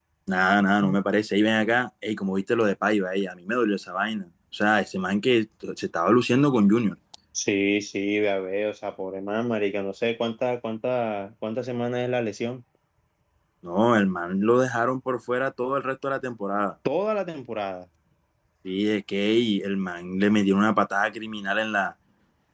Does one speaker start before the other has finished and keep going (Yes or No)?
No